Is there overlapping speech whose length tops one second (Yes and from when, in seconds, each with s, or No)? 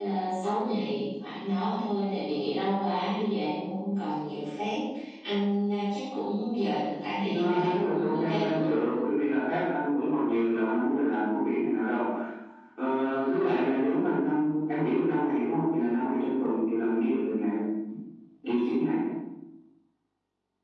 Yes, from 7.2 s